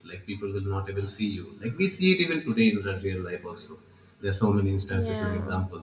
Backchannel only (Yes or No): Yes